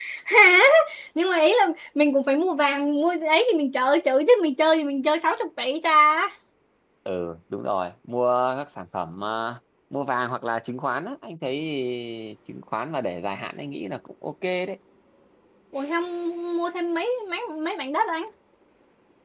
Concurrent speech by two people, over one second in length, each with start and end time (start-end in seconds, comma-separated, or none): none